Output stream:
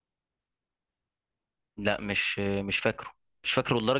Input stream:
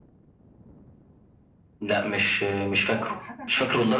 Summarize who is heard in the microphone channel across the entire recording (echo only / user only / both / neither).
both